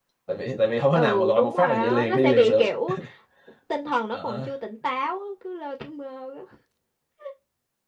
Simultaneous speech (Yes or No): Yes